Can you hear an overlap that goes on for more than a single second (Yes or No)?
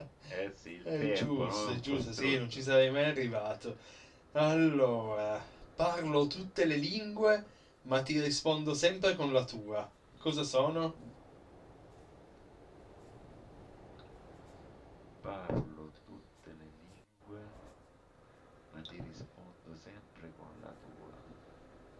Yes